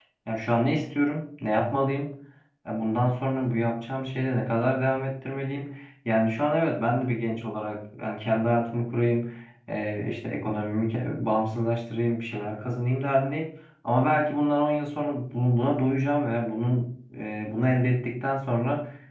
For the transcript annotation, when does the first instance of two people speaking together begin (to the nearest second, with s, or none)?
none